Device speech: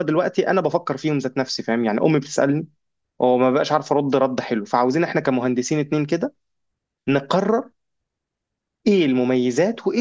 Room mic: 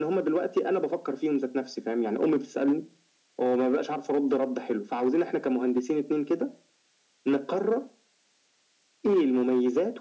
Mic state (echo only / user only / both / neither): echo only